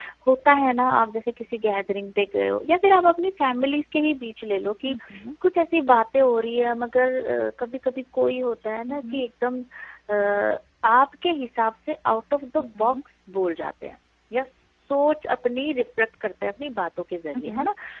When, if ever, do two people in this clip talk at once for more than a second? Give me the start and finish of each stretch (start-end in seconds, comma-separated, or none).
none